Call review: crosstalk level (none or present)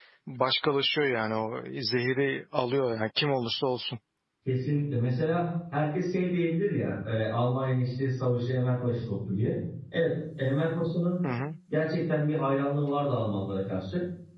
none